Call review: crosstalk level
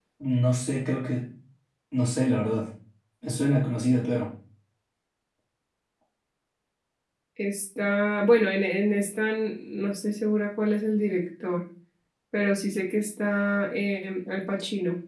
none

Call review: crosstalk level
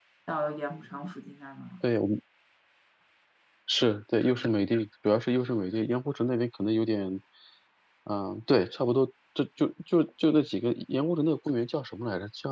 none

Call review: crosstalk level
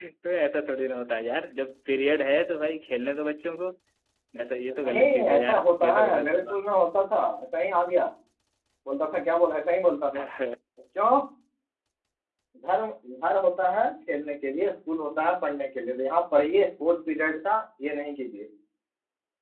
present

